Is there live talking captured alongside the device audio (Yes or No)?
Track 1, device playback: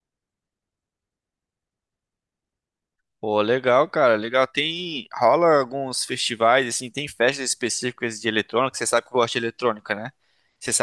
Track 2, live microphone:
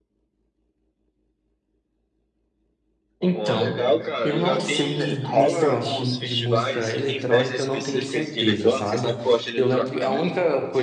Yes